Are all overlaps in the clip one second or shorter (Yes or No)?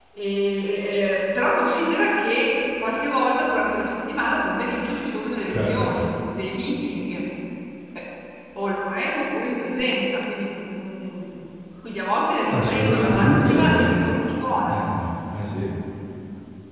No